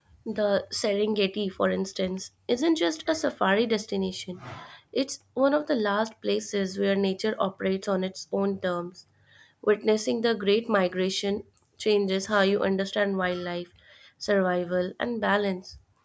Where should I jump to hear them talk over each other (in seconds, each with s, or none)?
none